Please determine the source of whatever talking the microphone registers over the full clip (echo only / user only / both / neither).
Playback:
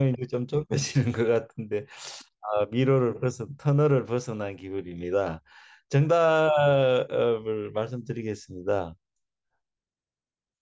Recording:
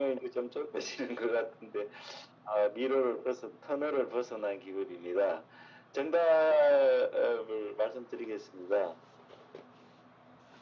echo only